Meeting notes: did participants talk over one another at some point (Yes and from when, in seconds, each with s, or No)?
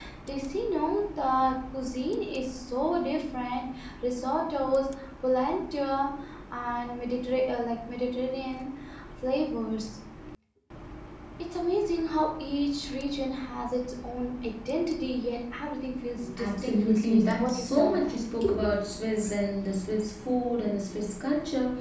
Yes, from 16.4 s